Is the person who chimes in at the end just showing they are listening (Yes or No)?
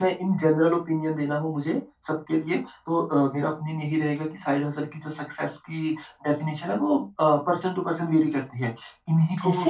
Yes